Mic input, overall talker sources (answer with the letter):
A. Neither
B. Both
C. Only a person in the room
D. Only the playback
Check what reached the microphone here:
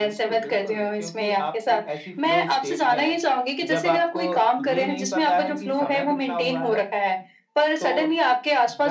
D